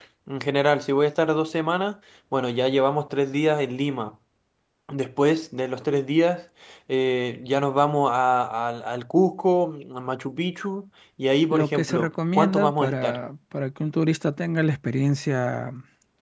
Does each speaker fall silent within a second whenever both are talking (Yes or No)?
No